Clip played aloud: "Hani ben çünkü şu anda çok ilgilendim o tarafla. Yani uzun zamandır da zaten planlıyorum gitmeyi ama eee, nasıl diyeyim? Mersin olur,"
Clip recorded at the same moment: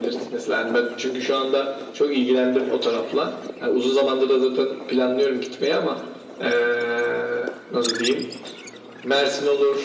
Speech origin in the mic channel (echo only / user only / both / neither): echo only